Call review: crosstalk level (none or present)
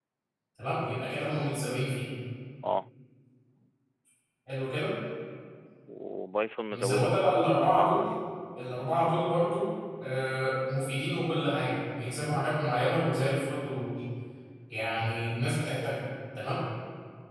present